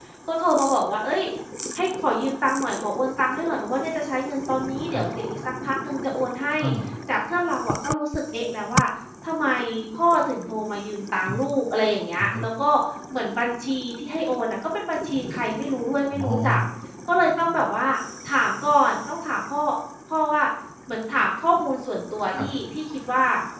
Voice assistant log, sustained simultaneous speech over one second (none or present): none